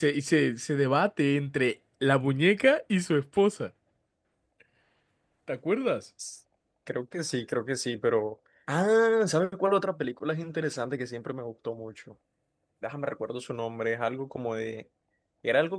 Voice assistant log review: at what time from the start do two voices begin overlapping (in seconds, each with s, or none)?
none